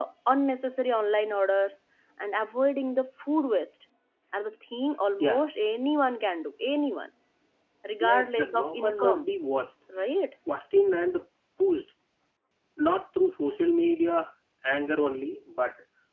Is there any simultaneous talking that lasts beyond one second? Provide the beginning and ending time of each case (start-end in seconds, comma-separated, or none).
8.0-9.2